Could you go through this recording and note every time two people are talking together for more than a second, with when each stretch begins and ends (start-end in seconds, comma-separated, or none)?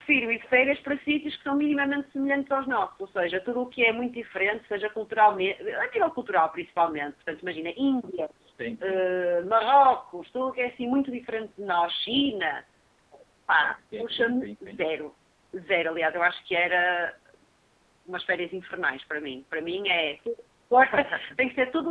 13.6-14.8